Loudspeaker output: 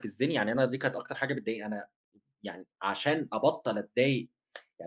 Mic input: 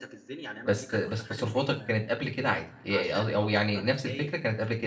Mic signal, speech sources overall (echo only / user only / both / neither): both